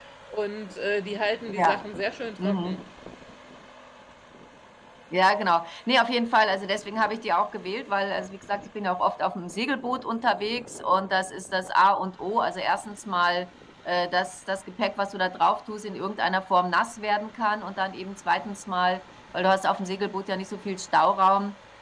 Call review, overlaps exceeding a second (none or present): none